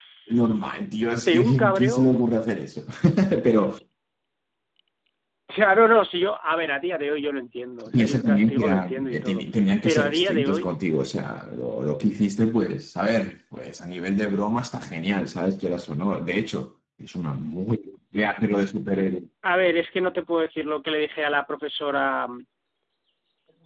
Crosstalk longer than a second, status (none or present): present